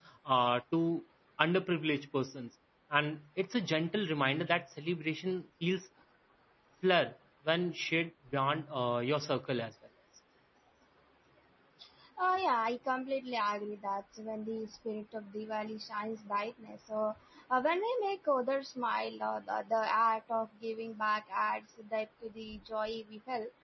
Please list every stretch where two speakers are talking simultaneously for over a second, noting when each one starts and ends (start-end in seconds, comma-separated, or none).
none